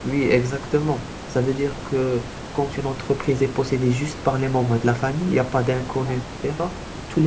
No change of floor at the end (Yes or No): Yes